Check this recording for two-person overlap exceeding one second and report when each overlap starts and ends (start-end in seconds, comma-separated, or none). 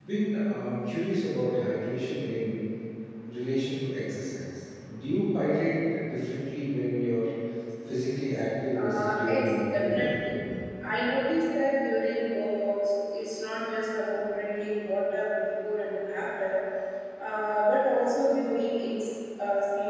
8.7-10.1